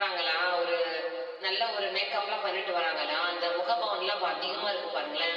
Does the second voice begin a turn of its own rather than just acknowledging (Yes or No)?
No